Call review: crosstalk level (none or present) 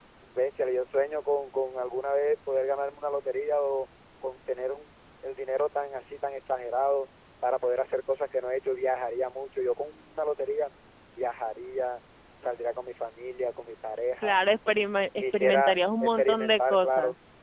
present